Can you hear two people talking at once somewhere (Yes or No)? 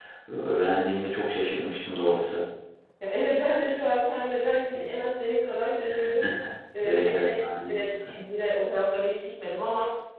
Yes